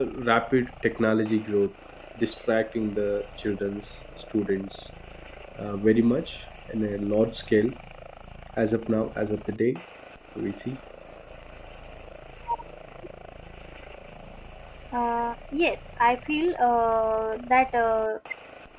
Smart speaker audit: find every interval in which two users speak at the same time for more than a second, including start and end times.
none

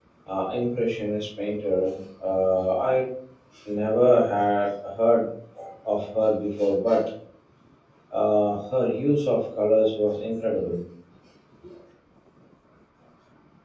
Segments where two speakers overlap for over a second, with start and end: none

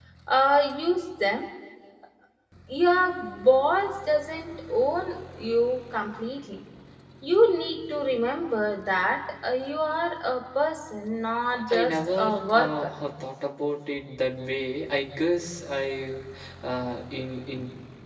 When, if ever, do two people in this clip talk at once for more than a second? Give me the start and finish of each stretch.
11.7-12.9

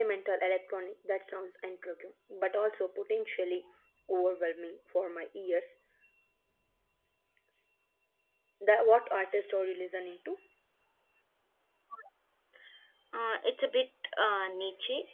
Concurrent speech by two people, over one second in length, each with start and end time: none

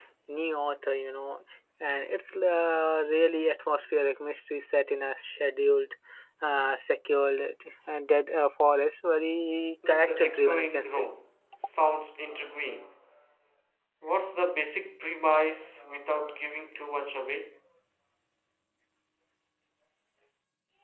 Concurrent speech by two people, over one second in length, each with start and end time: 9.9-11.1

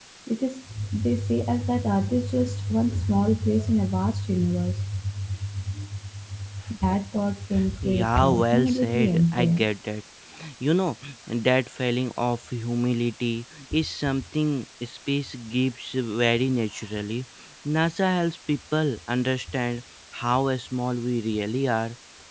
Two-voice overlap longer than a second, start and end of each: 7.8-9.6

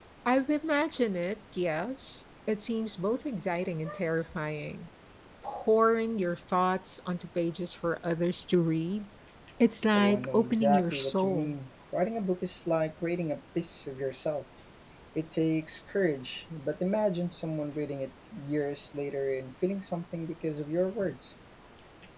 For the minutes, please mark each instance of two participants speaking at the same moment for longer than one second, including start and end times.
9.9-11.6

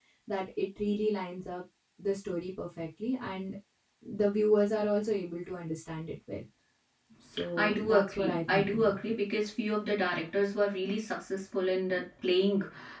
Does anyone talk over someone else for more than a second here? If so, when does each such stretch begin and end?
7.6-9.0

